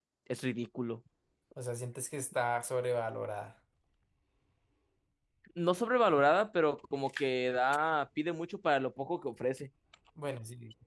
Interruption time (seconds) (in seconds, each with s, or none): none